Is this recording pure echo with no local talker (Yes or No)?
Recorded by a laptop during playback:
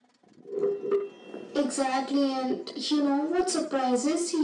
Yes